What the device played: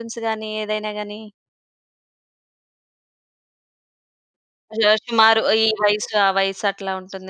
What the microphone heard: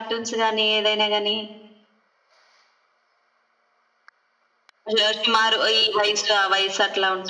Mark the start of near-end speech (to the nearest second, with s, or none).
none